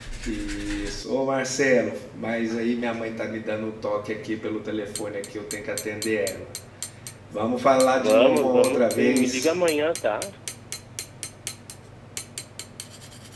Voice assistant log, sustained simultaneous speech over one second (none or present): present